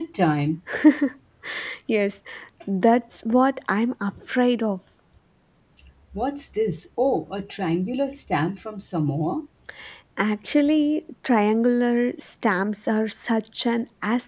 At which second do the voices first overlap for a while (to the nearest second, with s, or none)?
none